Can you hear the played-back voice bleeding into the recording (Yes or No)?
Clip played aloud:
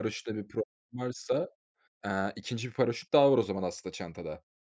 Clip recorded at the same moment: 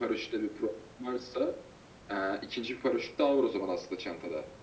Yes